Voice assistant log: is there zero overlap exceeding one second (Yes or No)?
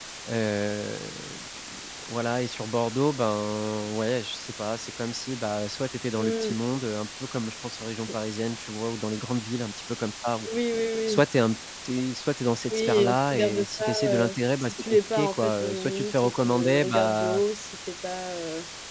No